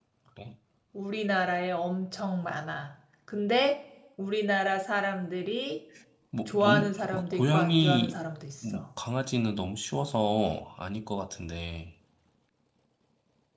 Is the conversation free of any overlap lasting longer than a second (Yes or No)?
No